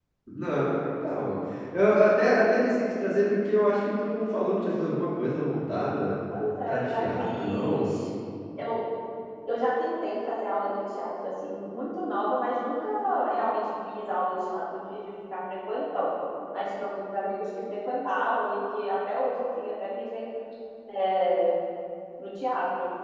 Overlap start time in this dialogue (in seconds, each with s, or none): 6.7 s